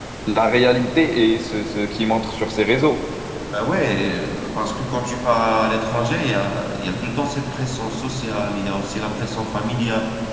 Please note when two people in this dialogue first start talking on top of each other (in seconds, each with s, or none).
none